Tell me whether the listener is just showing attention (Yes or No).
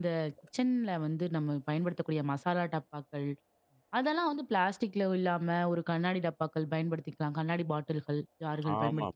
No